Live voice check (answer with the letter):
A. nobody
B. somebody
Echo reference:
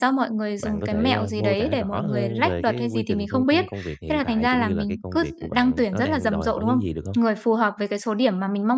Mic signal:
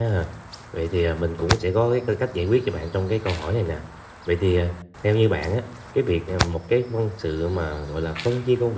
B